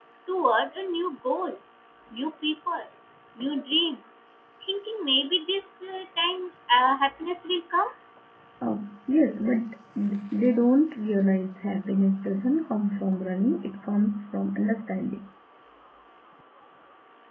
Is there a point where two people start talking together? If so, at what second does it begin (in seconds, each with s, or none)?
none